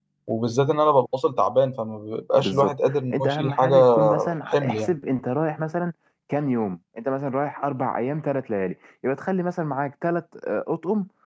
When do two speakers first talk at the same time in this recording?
2.4 s

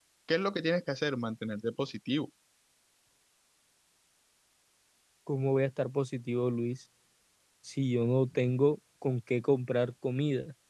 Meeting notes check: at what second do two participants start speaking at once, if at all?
none

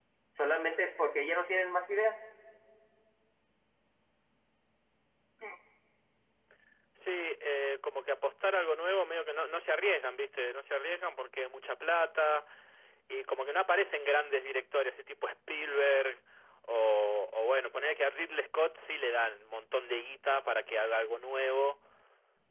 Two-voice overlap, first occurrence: none

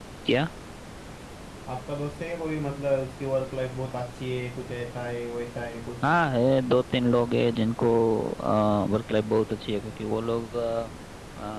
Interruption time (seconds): none

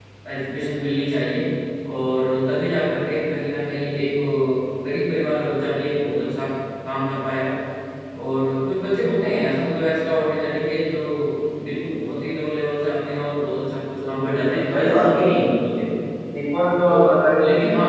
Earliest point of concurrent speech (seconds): 14.0 s

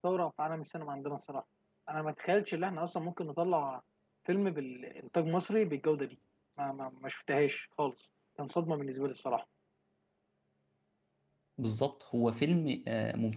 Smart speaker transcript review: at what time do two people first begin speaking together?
none

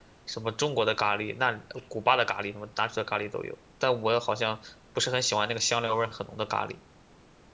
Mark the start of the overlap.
none

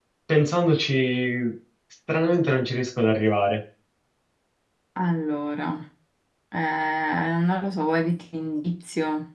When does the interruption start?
none

